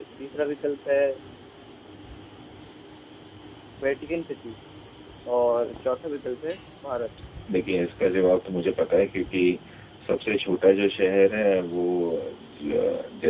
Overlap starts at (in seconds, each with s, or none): none